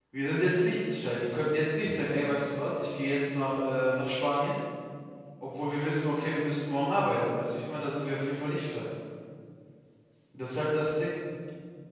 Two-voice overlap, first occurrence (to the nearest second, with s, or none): none